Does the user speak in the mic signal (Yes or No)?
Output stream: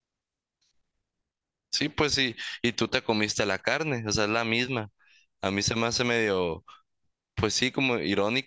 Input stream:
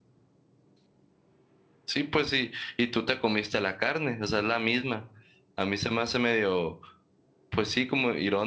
No